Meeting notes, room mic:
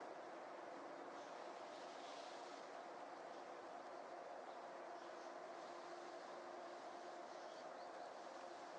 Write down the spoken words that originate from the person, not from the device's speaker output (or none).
none